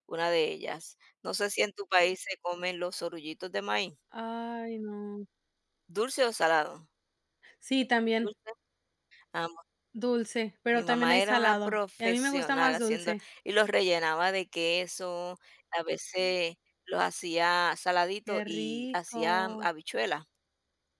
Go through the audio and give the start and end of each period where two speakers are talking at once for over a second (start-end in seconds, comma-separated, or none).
10.7-13.1, 18.3-19.7